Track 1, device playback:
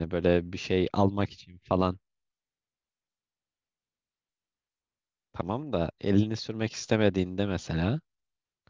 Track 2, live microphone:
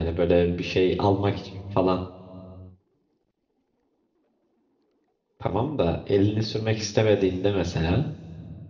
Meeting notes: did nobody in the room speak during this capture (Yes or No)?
Yes